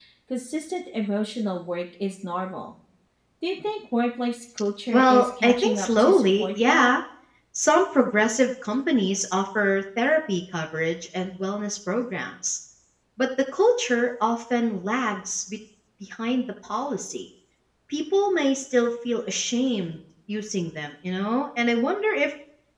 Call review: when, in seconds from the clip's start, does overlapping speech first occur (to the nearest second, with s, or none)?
5 s